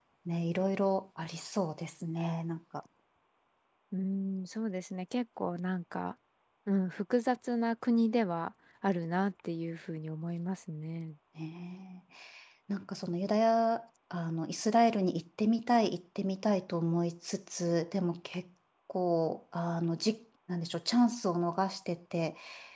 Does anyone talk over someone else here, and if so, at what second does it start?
none

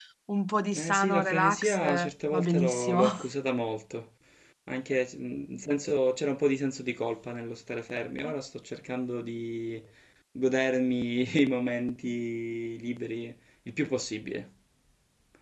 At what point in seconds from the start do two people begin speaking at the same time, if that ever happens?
0.8 s

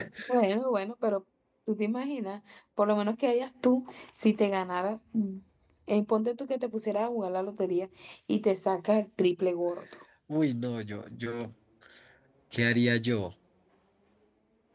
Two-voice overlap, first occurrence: none

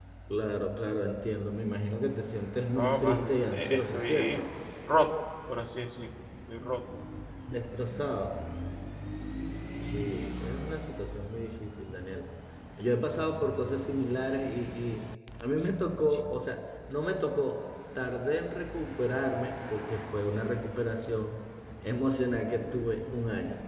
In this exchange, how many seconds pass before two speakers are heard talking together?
2.8 s

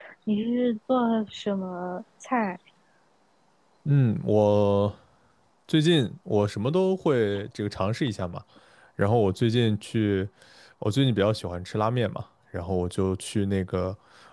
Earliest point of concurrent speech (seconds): none

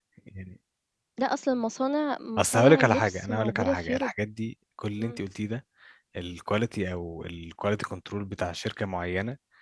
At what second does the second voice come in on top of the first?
2.4 s

